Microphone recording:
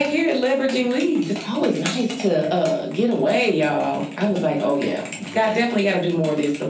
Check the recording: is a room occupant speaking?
No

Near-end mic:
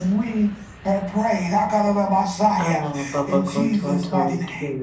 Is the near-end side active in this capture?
Yes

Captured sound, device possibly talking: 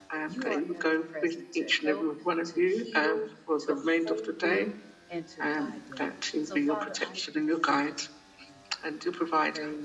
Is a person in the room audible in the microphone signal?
Yes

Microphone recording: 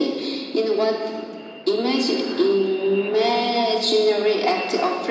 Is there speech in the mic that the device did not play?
No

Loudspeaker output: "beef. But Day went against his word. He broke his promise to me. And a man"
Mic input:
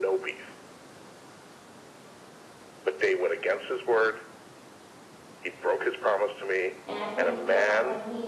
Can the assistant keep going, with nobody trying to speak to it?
No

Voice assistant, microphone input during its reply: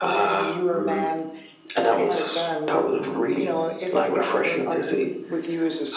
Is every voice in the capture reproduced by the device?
Yes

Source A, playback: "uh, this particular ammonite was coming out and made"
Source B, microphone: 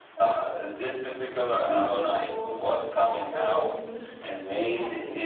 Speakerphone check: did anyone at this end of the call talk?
Yes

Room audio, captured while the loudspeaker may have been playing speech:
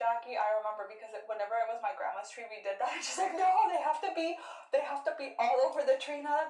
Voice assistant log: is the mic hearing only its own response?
Yes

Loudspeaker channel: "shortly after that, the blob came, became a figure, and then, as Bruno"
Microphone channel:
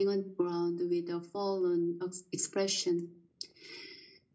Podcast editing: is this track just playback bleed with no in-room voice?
No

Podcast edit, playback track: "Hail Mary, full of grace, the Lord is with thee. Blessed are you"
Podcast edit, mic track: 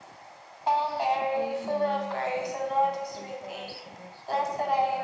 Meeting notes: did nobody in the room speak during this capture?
No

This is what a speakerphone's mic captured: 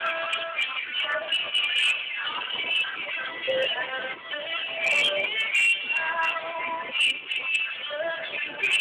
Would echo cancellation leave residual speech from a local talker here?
Yes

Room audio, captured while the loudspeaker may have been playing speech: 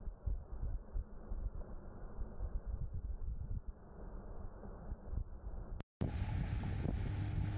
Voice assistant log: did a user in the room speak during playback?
No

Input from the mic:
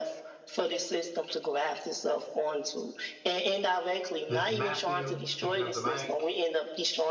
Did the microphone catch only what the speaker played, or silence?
No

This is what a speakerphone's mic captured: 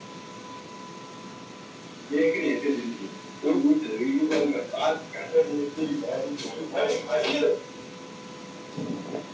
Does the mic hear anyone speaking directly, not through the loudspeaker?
No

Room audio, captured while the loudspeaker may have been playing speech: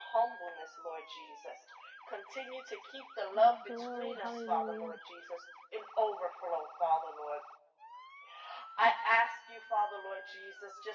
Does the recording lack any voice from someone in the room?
No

